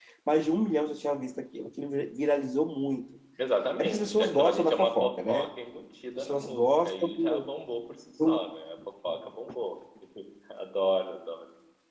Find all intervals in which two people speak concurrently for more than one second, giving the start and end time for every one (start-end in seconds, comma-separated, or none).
3.8-5.5, 6.2-7.5